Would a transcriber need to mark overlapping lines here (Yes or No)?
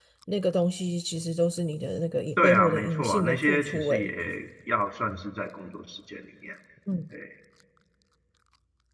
Yes